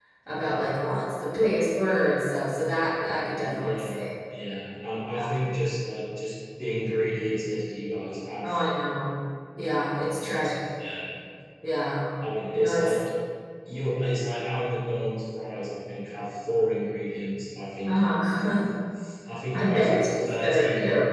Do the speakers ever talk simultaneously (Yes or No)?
Yes